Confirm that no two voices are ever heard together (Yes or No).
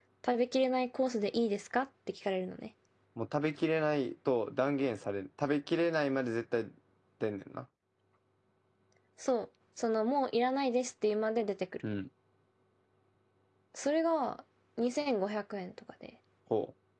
Yes